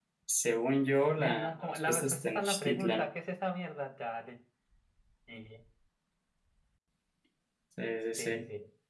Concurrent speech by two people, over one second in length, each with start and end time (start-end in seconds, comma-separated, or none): 1.2-3.1